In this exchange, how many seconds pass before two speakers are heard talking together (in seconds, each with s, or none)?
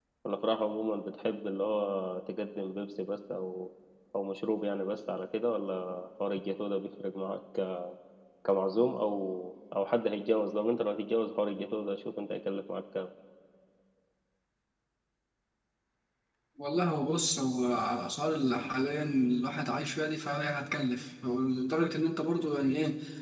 none